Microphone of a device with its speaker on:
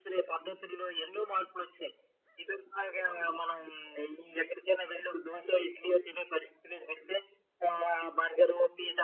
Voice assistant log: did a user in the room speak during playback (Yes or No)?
No